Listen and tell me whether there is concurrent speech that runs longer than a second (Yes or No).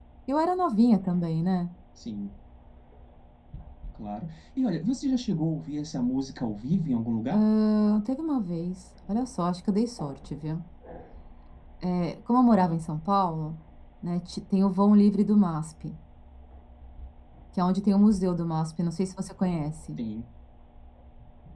No